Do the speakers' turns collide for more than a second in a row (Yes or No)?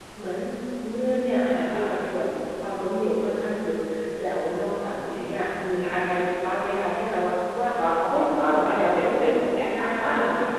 Yes